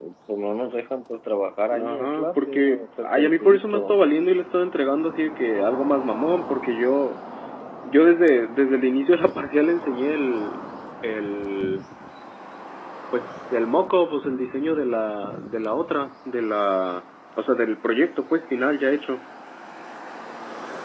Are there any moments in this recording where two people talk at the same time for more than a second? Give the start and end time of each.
1.7-4.0

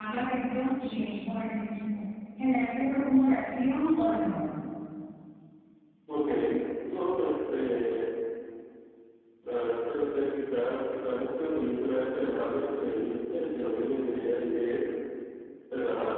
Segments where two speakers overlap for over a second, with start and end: none

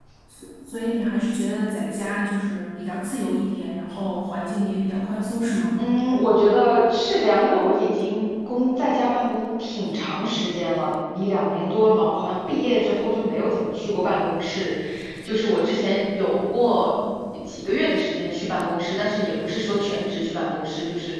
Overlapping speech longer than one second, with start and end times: none

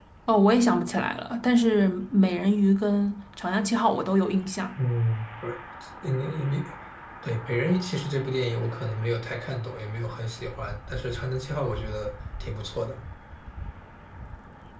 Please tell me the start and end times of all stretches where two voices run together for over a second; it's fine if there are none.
none

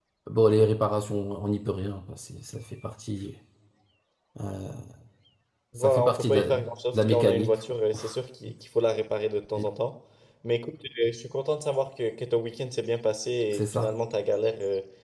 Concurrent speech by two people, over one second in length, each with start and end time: 5.8-7.6

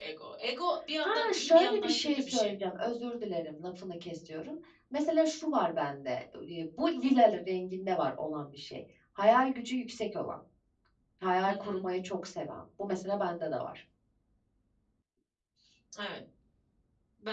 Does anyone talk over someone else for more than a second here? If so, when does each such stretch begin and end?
1.0-2.5

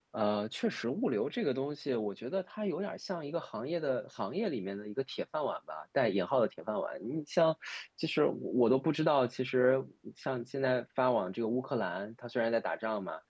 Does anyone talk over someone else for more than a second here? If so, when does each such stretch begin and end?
none

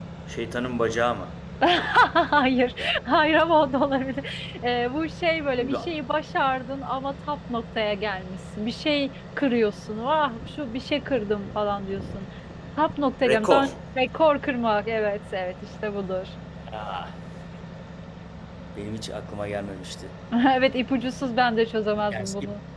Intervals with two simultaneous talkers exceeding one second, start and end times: none

